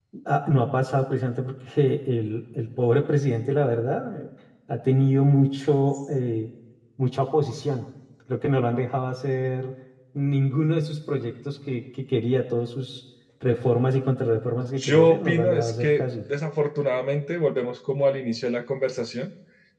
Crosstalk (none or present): present